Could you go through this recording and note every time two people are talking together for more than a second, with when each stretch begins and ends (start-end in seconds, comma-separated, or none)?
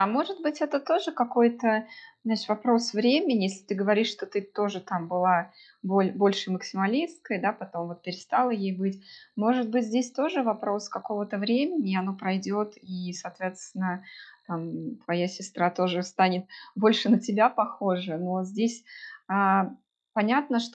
none